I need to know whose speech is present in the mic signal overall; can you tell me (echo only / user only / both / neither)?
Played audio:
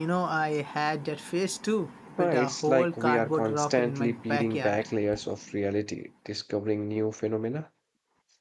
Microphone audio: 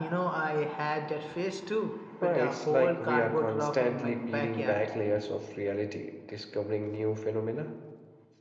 echo only